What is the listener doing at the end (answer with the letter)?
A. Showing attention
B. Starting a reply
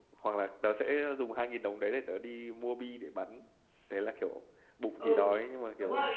B